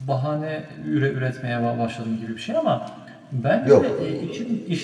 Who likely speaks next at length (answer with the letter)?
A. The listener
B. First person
B